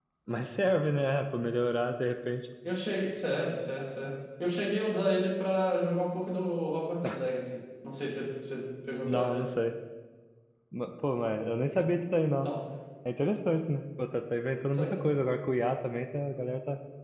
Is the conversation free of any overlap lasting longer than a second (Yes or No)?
Yes